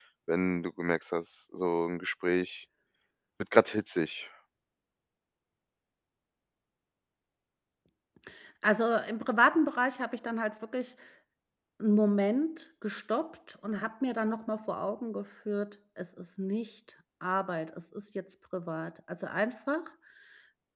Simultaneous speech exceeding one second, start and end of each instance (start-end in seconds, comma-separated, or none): none